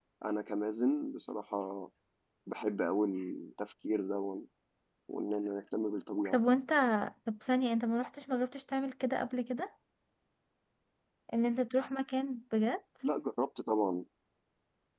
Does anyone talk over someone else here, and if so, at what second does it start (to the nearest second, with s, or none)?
none